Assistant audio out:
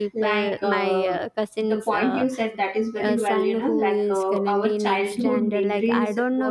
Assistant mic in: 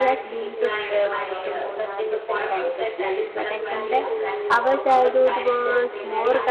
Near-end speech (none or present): present